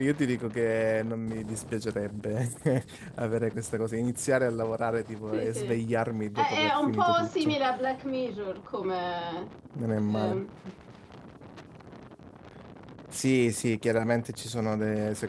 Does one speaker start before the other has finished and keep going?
Yes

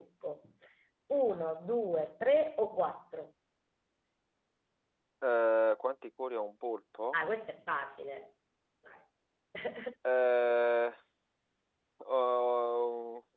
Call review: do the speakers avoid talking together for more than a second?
Yes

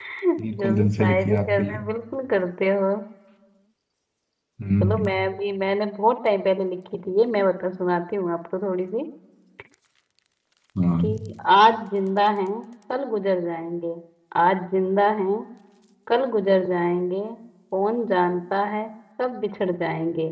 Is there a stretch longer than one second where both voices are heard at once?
Yes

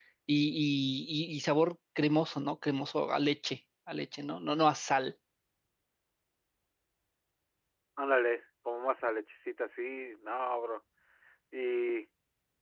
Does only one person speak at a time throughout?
Yes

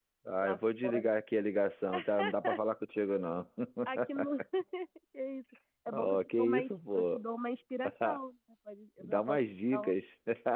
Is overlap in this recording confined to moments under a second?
No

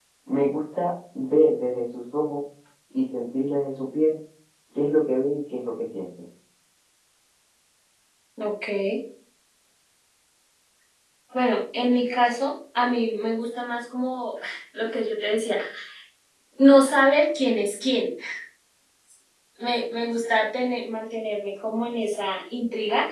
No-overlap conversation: Yes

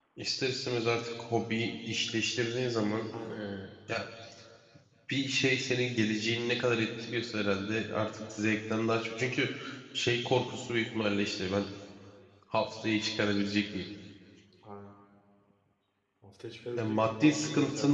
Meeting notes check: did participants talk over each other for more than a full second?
Yes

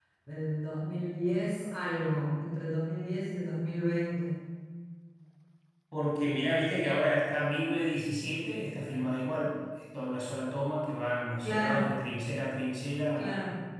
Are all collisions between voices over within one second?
Yes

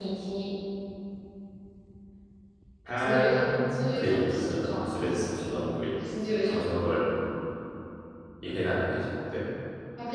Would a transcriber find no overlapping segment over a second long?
No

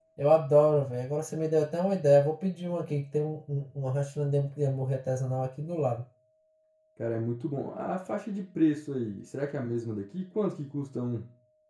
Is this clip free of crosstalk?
Yes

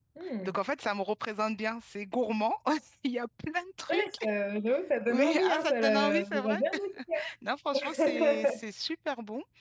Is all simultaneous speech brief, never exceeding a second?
No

